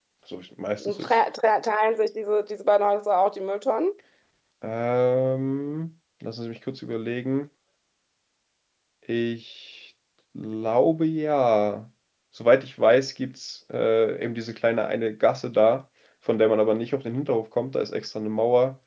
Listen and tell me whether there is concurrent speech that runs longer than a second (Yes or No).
No